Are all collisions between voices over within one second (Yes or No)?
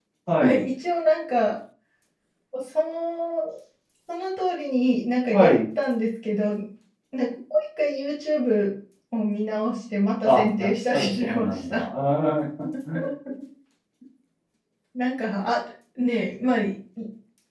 No